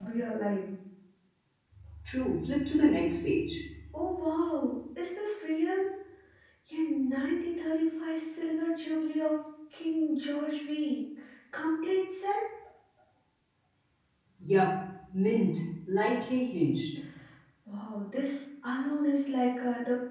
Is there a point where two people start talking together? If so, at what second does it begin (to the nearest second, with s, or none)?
none